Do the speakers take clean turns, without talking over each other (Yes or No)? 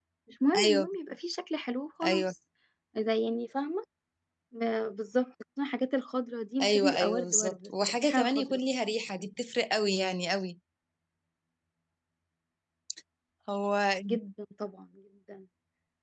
No